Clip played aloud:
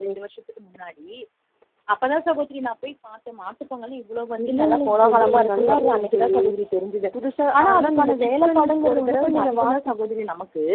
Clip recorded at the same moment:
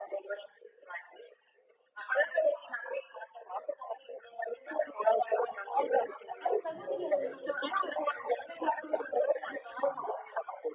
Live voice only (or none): ஆ சகோதரி அது